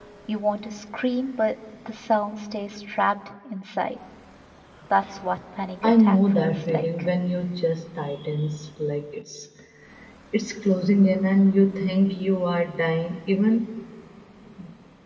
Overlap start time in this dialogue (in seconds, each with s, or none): 5.8 s